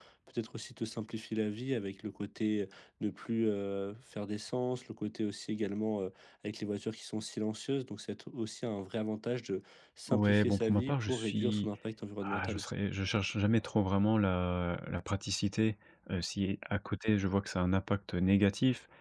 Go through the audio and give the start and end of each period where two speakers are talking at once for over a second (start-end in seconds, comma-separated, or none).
10.1-11.7